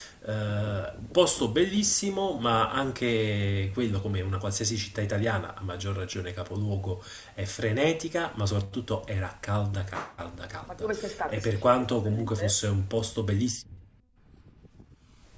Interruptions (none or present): present